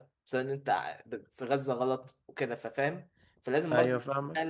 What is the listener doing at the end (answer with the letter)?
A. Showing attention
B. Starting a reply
A